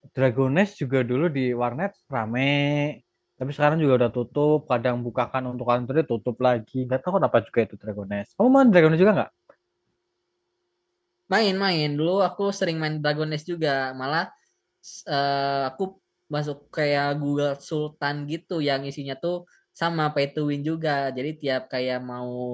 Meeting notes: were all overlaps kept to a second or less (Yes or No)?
Yes